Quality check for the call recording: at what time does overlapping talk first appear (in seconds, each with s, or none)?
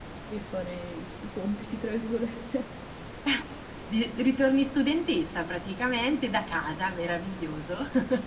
none